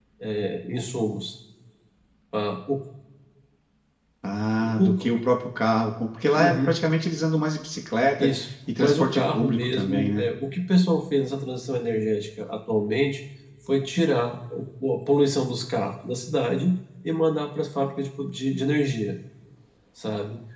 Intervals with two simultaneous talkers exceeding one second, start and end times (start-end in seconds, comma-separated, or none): 8.8-10.3